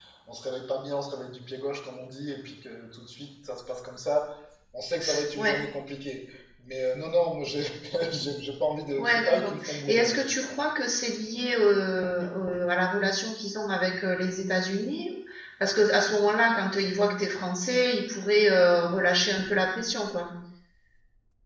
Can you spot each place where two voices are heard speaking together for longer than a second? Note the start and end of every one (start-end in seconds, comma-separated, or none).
9.0-10.3